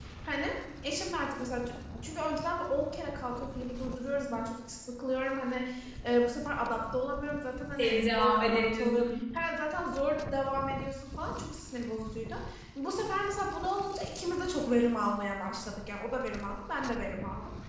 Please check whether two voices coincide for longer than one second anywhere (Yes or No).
Yes